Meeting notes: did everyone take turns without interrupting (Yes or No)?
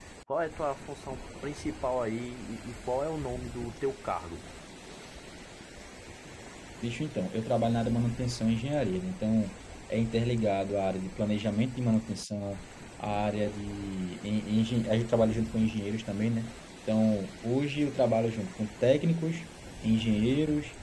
Yes